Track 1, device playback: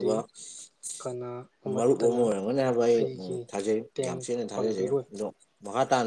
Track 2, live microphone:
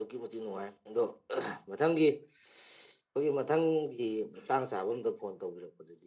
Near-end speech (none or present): present